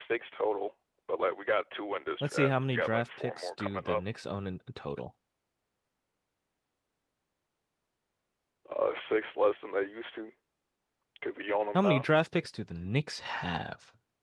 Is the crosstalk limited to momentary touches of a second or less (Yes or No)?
No